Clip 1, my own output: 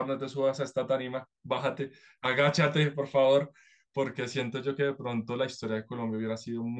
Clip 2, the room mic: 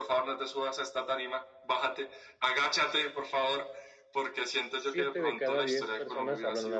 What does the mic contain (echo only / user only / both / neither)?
both